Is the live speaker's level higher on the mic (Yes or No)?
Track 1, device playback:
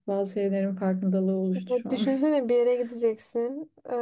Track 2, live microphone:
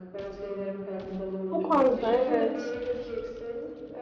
Yes